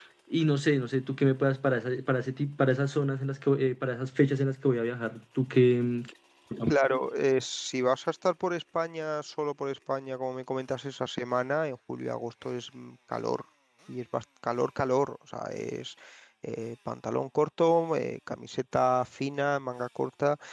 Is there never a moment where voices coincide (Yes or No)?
Yes